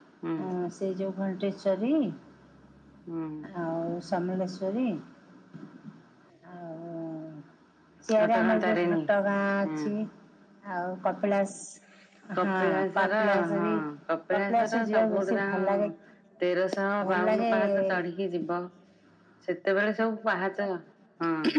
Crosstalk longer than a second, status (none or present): present